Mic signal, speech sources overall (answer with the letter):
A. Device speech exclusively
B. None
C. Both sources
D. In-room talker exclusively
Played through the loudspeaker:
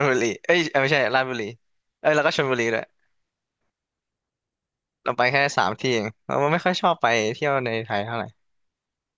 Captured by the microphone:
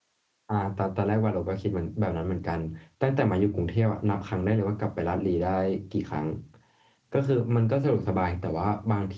D